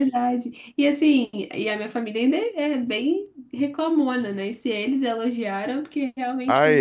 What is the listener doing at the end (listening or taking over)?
taking over